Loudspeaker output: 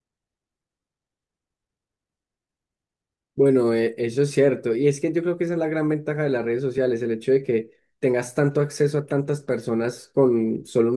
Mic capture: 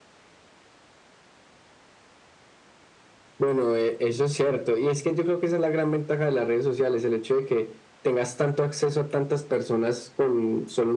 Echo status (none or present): present